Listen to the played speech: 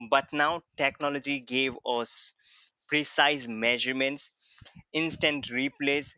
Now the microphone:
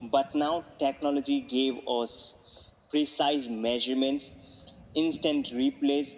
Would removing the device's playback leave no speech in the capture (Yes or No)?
Yes